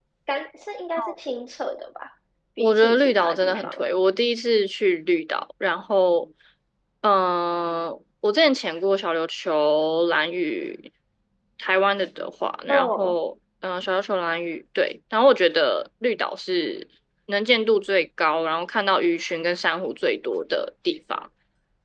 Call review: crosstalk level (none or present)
present